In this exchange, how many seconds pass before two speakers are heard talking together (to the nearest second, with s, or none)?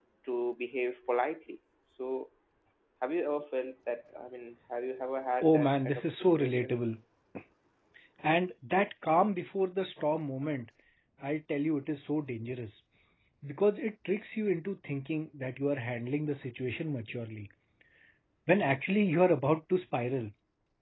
5 s